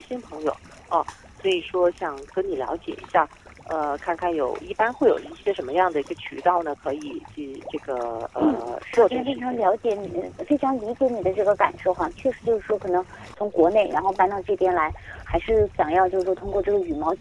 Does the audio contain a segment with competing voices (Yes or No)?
Yes